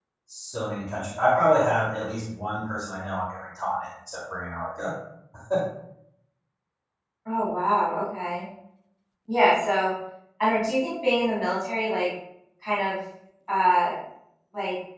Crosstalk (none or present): none